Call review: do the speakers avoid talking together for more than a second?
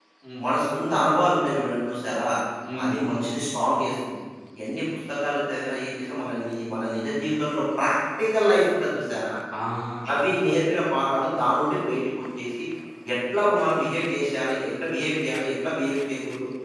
Yes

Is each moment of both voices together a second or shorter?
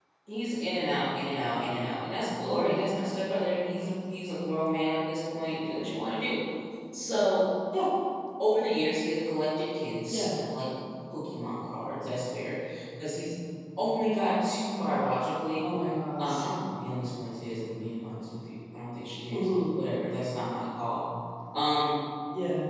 Yes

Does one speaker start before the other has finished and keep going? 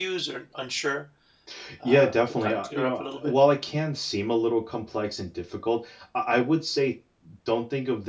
Yes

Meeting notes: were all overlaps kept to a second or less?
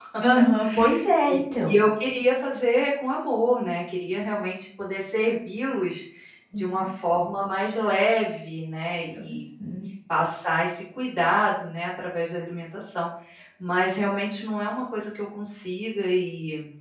Yes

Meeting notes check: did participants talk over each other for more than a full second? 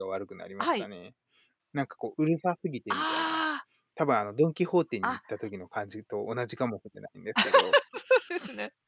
No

